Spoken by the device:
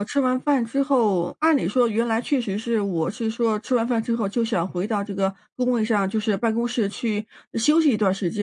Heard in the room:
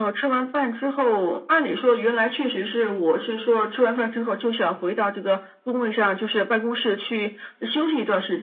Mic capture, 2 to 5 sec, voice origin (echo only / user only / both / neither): echo only